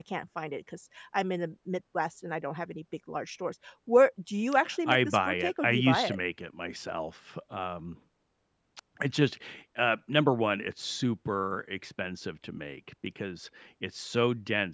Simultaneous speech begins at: 4.8 s

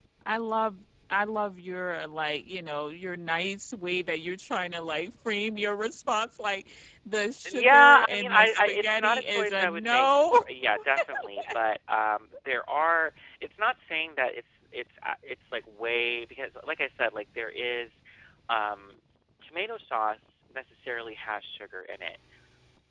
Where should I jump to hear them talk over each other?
7.4 s

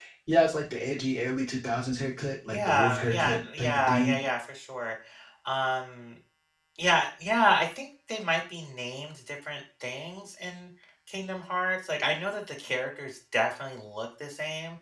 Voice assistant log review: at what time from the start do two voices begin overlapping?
2.5 s

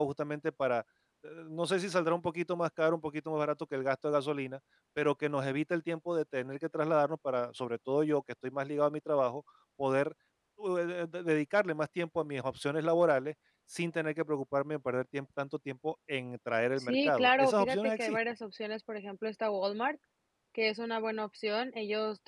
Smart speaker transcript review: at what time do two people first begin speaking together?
16.8 s

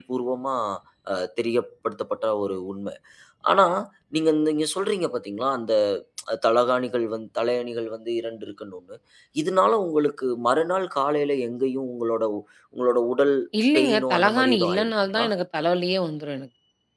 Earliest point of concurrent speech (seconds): 13.8 s

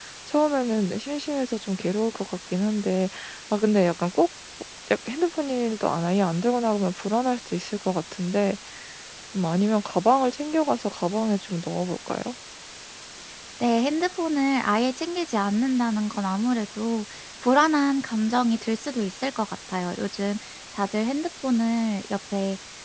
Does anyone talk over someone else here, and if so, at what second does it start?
none

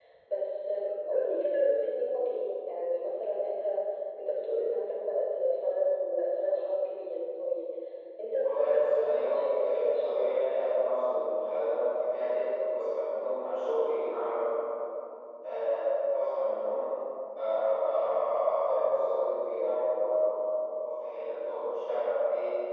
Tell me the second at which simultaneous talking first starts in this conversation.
8.4 s

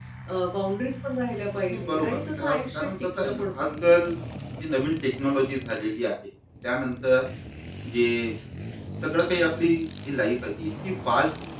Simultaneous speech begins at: 1.7 s

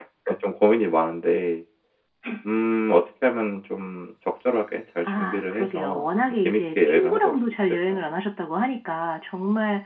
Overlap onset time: 5.0 s

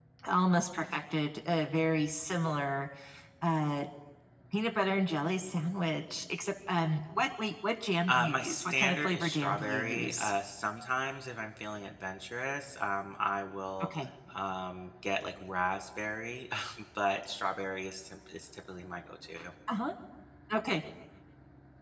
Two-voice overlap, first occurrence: 8.1 s

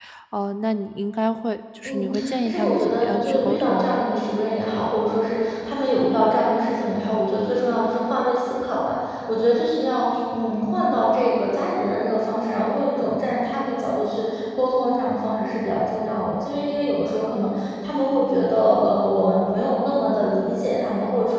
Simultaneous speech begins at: 1.9 s

